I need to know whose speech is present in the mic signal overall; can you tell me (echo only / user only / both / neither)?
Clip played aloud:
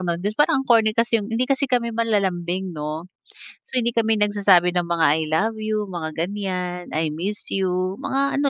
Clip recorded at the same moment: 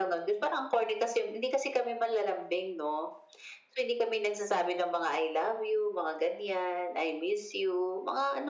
echo only